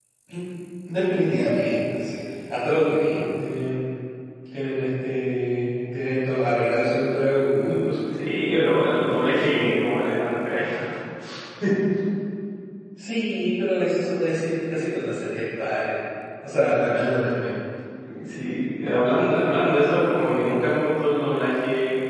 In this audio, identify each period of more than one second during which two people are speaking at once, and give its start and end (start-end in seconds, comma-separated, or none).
none